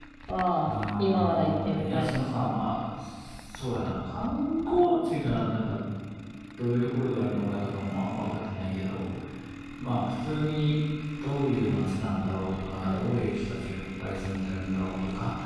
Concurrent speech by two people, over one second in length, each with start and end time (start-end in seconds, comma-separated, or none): 0.7-2.5